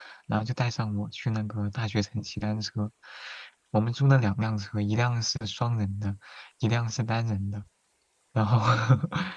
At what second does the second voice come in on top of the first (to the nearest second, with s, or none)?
none